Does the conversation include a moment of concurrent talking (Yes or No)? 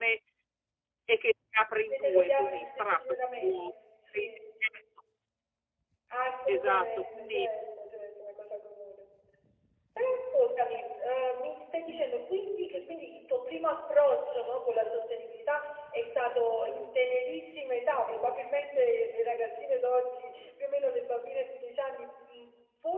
Yes